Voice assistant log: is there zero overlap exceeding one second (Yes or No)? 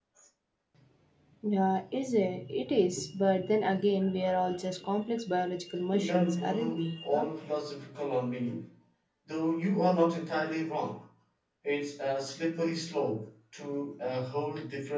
No